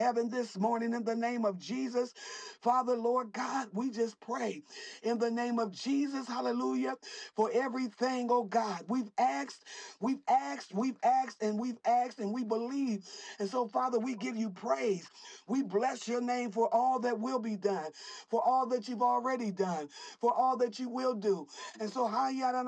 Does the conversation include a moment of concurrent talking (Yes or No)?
No